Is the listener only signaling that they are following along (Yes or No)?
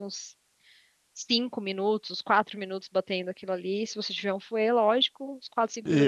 No